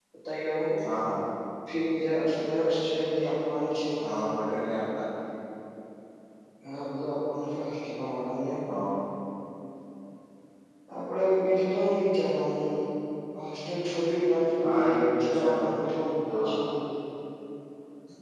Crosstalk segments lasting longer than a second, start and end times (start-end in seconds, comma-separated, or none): 14.6-15.9